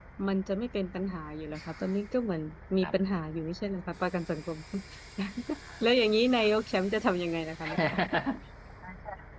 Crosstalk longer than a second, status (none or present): none